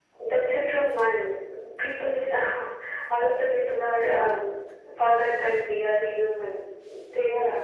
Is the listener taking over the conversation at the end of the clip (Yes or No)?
No